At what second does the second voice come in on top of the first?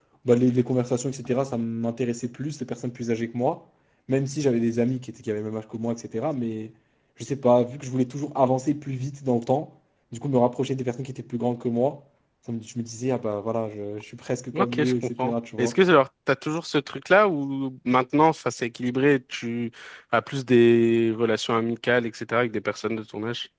14.5 s

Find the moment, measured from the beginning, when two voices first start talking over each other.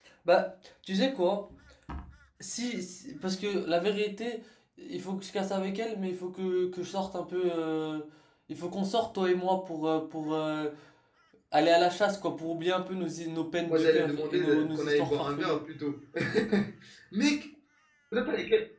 13.7 s

